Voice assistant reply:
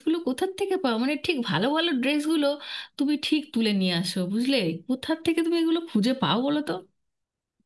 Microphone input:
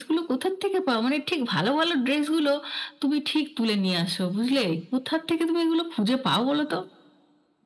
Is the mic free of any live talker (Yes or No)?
Yes